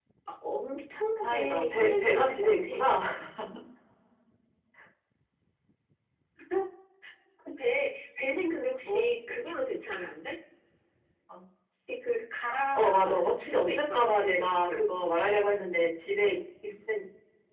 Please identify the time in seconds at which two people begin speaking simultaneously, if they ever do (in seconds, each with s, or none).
1.2 s